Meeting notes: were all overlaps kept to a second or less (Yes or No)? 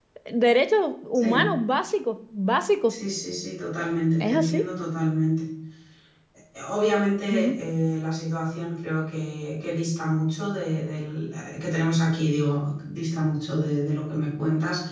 Yes